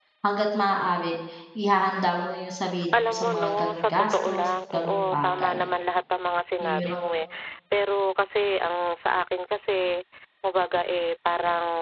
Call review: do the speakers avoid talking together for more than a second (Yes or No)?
No